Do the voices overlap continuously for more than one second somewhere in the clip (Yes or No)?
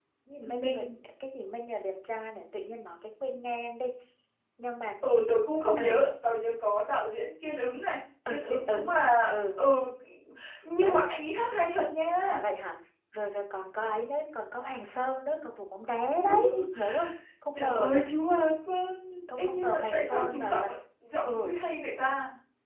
Yes